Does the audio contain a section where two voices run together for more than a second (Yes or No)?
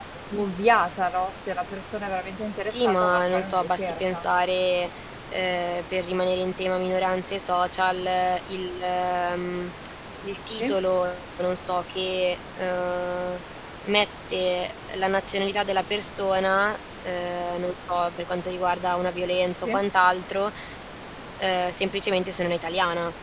Yes